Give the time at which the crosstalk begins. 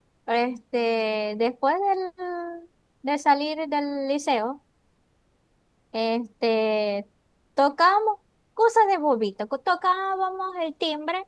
none

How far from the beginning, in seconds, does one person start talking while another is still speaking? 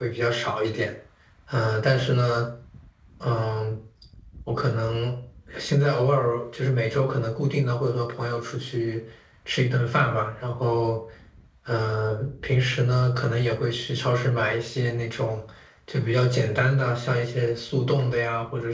none

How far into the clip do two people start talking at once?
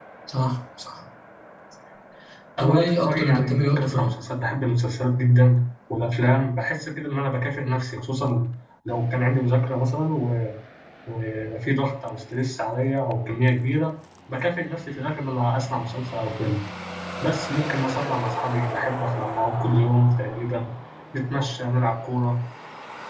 2.6 s

